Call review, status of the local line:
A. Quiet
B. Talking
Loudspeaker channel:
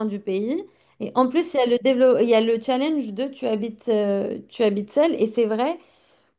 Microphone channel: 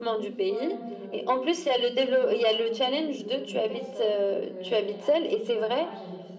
B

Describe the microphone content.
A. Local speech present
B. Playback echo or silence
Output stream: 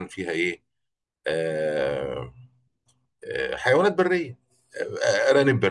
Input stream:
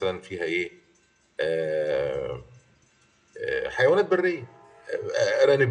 B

